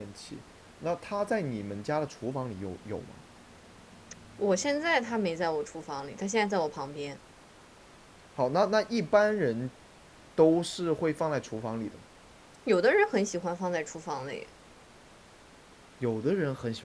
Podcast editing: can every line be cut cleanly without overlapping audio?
Yes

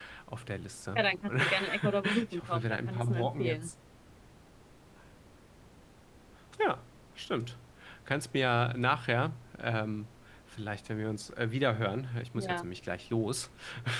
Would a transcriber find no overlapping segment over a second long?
No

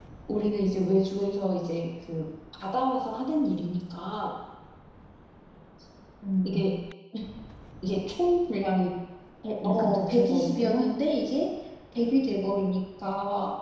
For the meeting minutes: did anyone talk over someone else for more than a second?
Yes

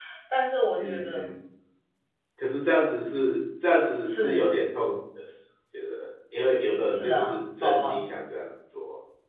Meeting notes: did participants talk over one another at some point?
Yes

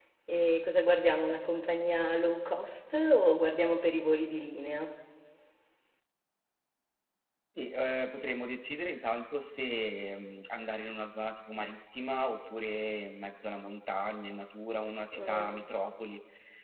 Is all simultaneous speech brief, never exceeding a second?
Yes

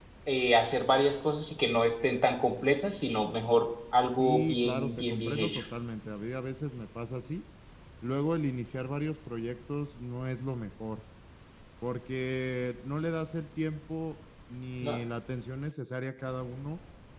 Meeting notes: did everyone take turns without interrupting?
No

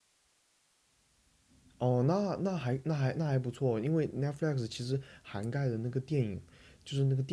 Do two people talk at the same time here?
No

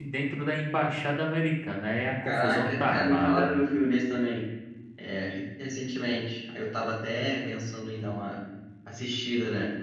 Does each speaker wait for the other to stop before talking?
No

